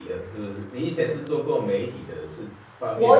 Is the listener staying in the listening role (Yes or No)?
No